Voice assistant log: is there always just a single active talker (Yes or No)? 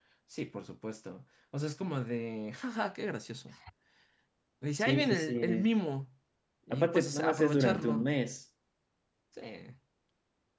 No